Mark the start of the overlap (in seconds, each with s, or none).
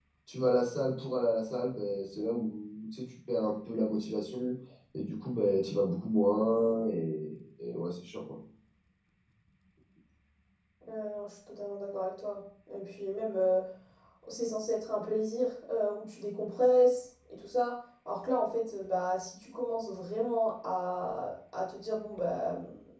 none